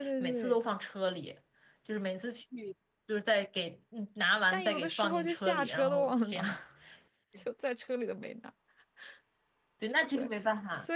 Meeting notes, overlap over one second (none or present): present